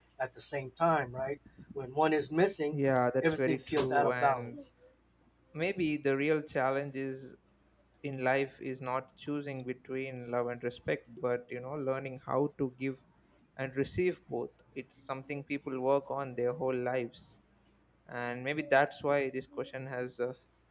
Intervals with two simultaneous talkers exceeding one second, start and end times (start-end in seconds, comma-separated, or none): 3.2-4.6